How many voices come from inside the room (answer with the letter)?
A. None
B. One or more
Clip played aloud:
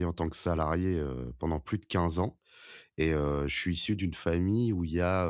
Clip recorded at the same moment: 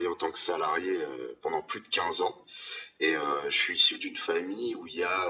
A